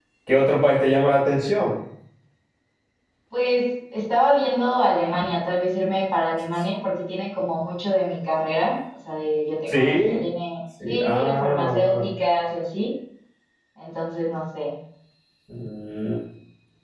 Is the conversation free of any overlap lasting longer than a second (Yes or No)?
No